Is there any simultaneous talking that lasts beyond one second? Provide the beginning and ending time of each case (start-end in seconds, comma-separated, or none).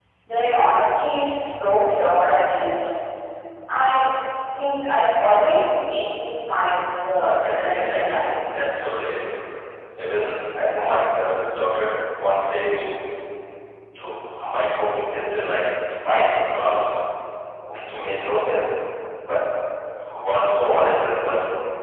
7.2-8.9